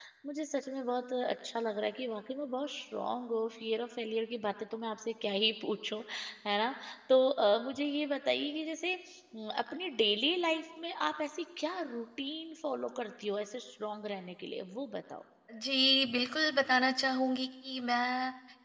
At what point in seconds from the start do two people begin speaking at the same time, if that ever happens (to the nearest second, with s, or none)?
none